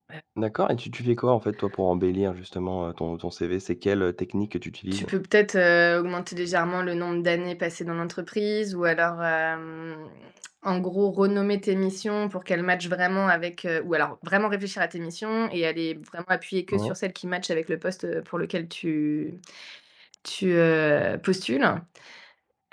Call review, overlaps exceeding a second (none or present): none